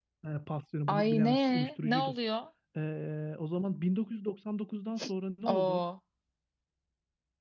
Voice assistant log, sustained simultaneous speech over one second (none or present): present